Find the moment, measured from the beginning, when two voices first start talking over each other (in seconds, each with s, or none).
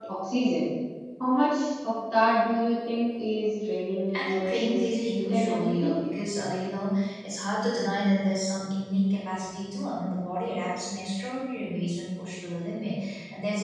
4.1 s